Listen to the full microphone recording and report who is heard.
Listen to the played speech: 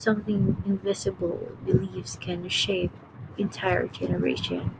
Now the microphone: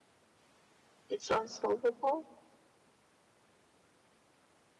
user only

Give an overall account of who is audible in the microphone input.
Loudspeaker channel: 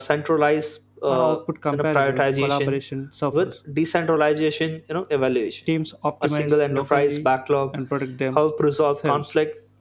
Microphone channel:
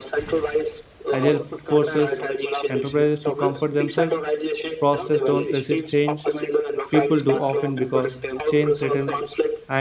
both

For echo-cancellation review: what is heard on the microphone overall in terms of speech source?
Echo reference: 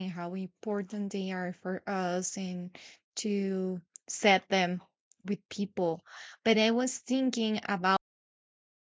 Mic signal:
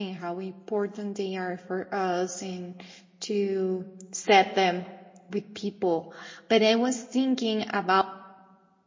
echo only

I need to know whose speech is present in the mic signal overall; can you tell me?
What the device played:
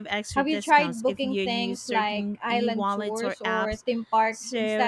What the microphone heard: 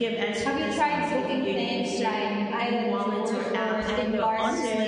both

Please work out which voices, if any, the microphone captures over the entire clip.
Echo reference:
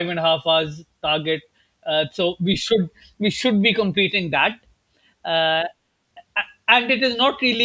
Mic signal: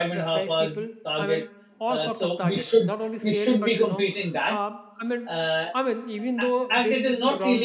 both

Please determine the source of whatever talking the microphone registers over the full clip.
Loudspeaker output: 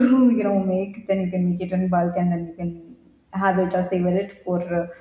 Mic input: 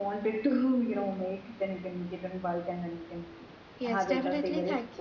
both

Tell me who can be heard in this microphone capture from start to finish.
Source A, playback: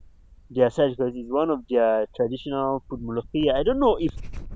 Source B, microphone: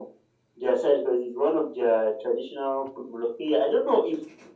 echo only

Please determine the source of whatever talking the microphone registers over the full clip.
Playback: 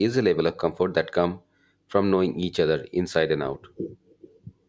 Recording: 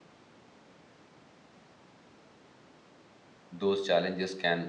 user only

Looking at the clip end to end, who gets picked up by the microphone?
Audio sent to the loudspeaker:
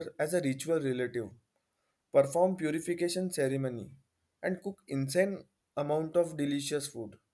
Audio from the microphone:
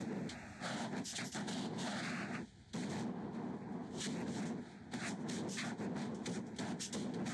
neither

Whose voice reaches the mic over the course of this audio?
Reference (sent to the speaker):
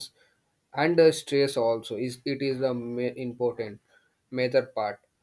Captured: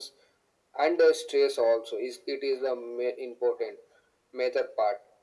echo only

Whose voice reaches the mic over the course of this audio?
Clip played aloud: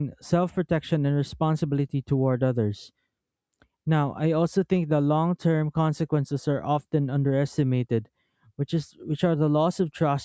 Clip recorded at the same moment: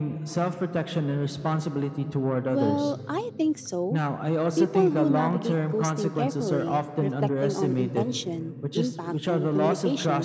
both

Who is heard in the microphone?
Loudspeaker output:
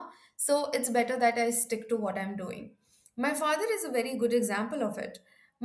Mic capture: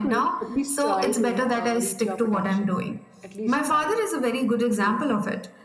both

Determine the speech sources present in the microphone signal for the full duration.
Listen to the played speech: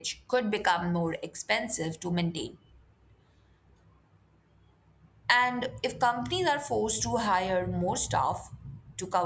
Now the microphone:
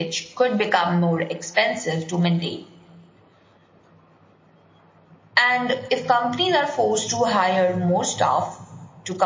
echo only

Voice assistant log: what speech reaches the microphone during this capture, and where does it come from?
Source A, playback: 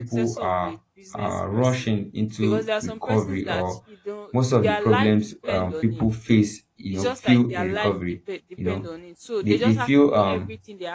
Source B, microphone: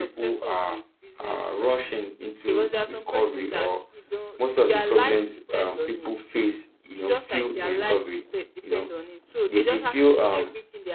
echo only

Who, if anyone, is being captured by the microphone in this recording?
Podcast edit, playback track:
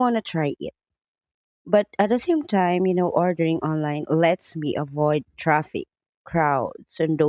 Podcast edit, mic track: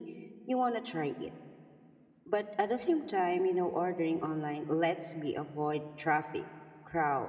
echo only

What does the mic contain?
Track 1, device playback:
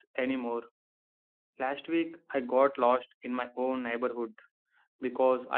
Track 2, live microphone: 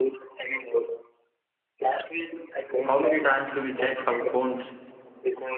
both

